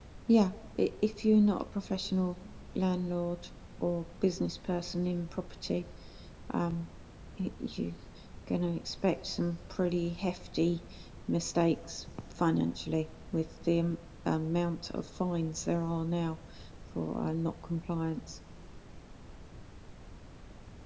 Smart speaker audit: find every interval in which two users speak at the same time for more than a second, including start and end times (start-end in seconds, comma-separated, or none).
none